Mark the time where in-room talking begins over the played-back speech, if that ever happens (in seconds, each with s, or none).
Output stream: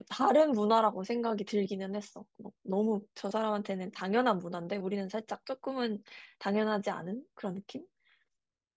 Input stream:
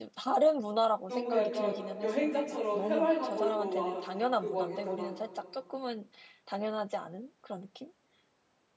1.1 s